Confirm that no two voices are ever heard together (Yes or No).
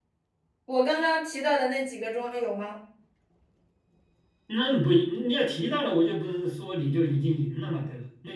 Yes